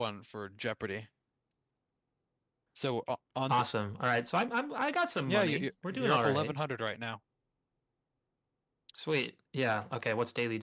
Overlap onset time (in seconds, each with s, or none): 5.3 s